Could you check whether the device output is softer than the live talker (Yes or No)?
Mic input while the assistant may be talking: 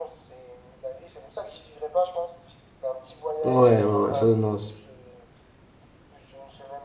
Yes